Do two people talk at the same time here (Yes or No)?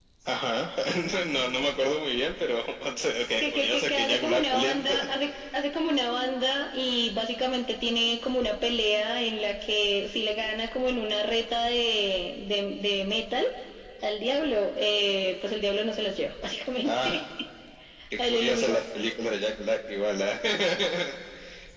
Yes